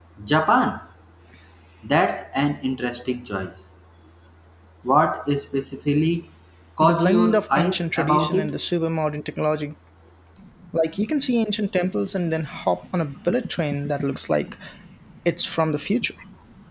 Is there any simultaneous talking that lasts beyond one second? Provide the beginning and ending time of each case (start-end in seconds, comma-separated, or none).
6.8-8.5